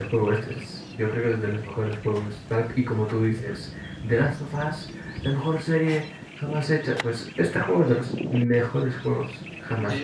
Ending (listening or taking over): taking over